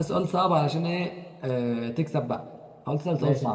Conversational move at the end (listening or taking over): taking over